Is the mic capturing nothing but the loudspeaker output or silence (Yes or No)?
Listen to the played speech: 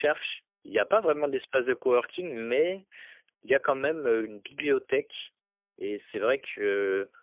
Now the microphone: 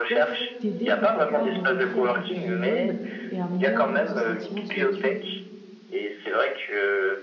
No